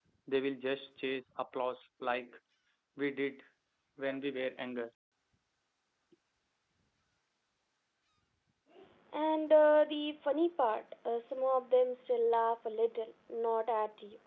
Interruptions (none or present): none